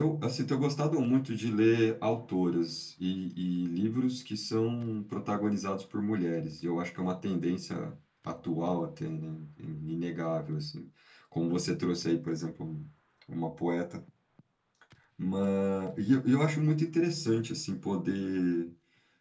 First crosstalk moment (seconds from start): none

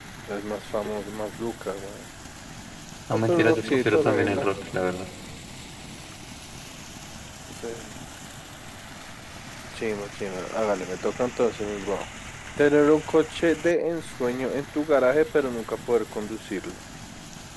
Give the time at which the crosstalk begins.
3.1 s

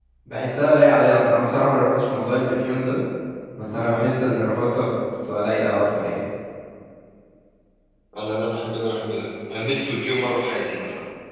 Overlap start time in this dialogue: none

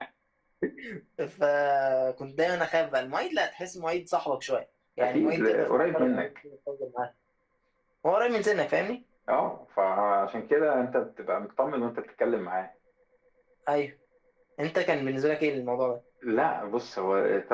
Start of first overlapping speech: 5.0 s

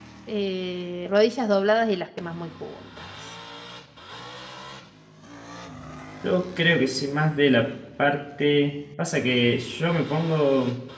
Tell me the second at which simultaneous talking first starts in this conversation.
none

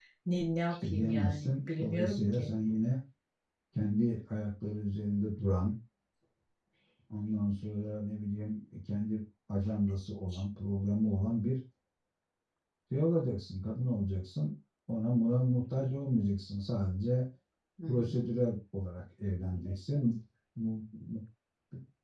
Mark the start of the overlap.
0.8 s

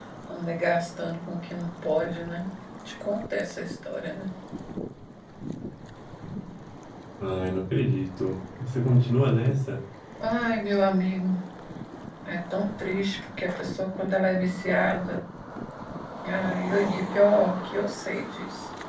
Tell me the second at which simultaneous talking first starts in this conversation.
none

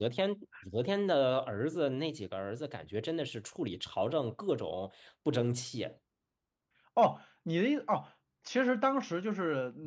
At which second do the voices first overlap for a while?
none

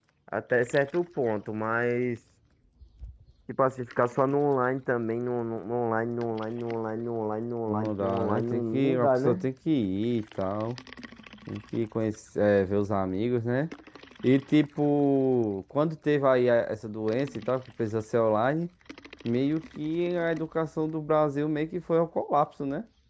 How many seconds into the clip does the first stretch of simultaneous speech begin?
7.7 s

